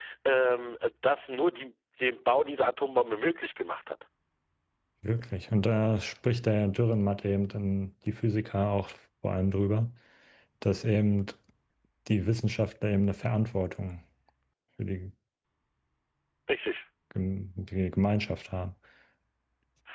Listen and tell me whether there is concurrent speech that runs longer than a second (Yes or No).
No